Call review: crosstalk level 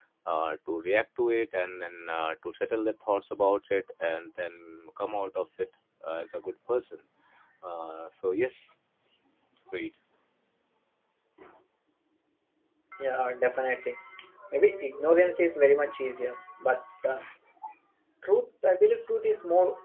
none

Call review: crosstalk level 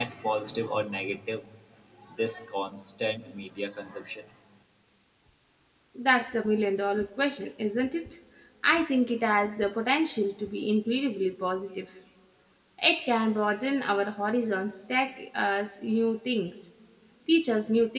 none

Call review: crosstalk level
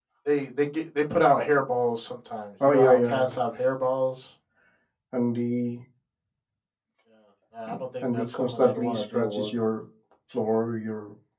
present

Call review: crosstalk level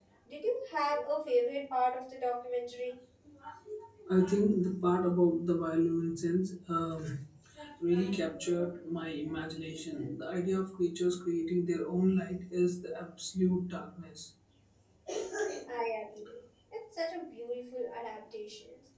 none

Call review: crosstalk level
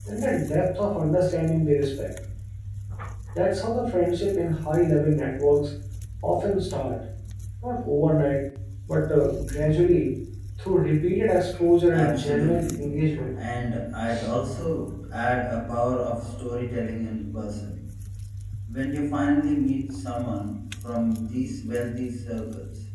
present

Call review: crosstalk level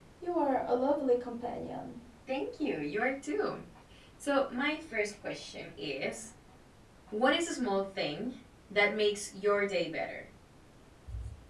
none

